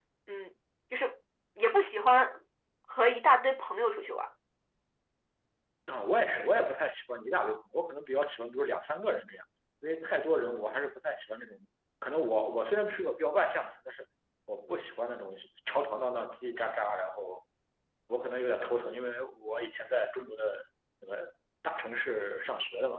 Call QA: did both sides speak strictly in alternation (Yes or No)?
Yes